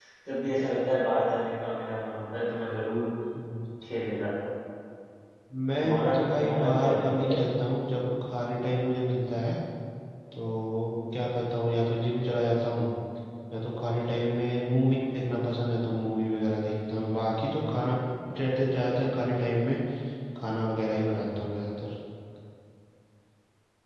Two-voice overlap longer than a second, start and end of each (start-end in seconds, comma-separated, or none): 5.8-7.4